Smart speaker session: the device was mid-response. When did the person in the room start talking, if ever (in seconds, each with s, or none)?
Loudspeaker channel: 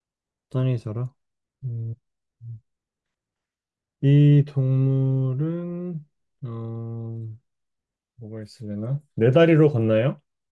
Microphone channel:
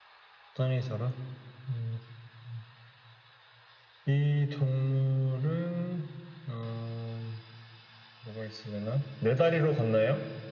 none